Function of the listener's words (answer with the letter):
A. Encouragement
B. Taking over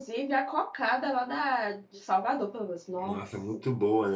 B